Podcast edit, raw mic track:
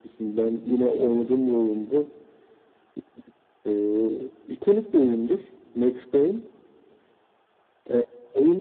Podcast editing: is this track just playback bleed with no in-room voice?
Yes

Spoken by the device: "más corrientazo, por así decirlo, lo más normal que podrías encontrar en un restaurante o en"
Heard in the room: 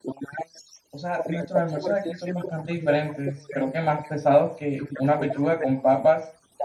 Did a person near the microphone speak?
Yes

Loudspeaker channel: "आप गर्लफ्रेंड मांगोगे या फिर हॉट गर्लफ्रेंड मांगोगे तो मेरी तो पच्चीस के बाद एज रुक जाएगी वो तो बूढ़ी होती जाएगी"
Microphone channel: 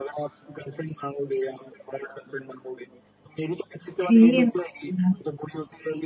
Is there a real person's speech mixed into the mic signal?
Yes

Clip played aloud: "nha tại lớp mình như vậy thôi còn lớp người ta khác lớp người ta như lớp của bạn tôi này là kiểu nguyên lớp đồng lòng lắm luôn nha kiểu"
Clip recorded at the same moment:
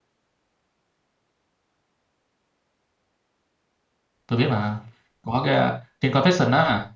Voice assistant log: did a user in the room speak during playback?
Yes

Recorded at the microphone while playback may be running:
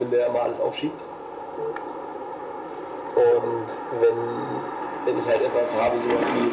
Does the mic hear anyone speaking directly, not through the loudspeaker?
No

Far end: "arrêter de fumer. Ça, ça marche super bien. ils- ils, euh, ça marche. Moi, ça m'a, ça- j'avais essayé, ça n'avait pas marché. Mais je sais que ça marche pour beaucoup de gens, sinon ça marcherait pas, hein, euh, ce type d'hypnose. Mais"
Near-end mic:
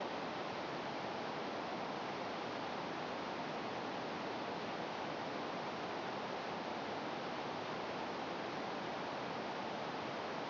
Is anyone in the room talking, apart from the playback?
No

